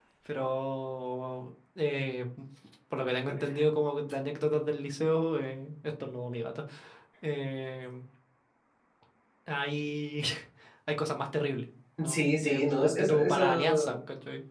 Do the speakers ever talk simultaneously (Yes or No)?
Yes